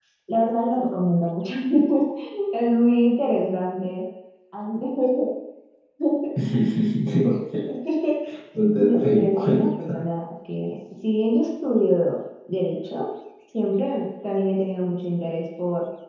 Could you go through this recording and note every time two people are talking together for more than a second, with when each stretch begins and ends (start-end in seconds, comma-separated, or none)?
8.8-10.0